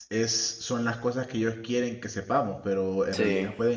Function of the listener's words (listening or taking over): listening